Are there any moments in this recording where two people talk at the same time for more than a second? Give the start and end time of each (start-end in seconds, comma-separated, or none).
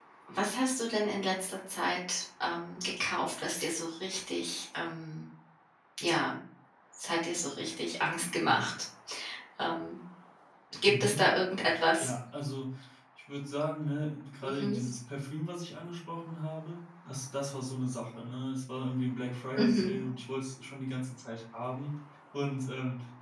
none